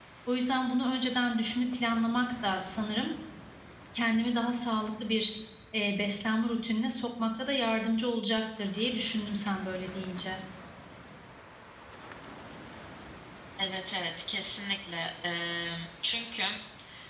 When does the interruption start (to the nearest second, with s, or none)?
none